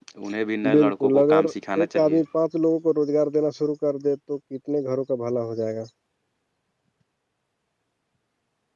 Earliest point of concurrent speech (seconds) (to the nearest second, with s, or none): 1 s